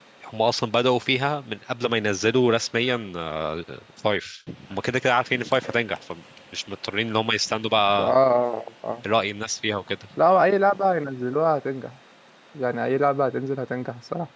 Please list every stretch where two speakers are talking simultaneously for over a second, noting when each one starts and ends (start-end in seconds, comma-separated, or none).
none